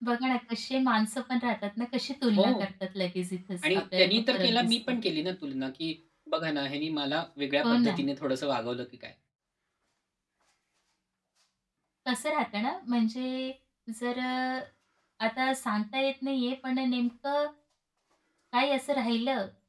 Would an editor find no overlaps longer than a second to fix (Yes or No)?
No